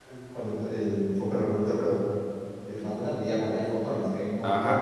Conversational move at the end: taking over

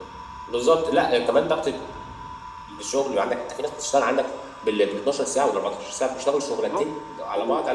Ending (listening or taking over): taking over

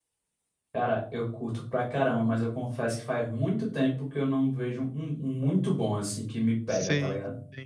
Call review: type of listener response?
taking over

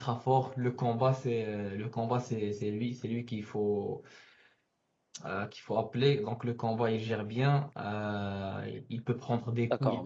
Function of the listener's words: taking over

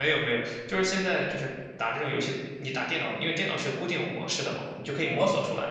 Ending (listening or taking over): listening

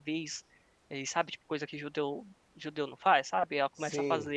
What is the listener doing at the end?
listening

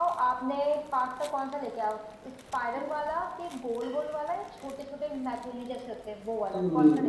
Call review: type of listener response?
taking over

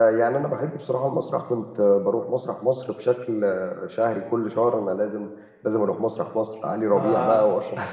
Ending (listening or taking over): listening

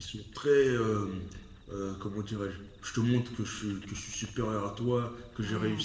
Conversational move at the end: listening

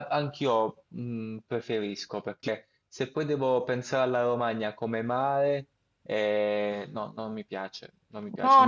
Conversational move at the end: taking over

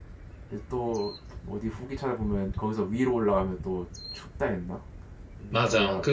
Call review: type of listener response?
taking over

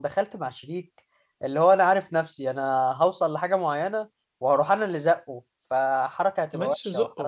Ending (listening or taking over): taking over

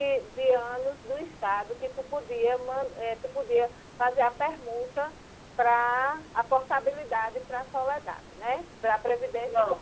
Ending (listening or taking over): taking over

